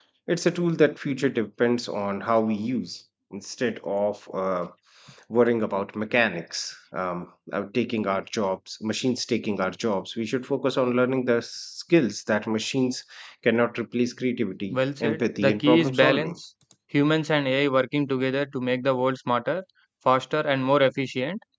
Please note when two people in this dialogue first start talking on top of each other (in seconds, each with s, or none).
14.7 s